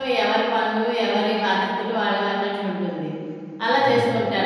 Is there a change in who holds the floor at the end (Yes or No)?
No